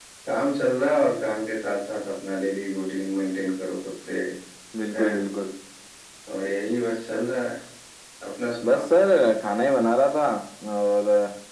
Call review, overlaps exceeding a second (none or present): none